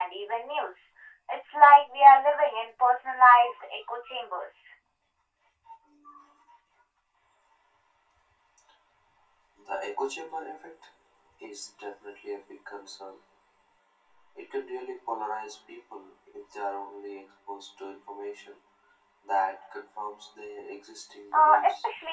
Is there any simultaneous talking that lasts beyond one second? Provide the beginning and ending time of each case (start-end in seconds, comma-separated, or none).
none